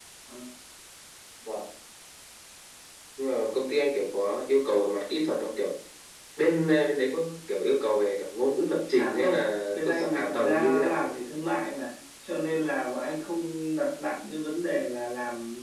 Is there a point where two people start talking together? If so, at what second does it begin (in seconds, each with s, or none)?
9.0 s